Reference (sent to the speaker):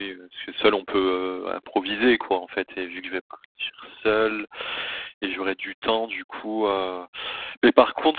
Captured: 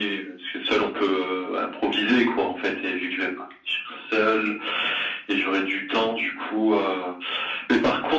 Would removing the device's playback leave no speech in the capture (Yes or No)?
Yes